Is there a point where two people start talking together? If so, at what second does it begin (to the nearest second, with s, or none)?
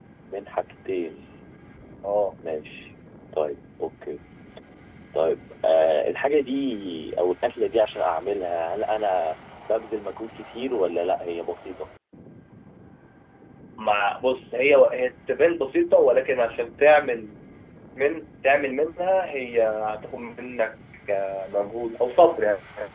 none